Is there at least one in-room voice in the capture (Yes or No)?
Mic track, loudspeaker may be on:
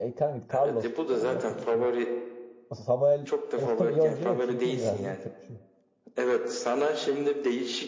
Yes